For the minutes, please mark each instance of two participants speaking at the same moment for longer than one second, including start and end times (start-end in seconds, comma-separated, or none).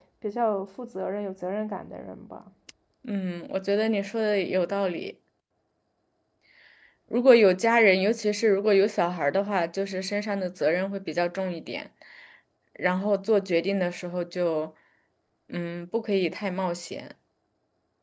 none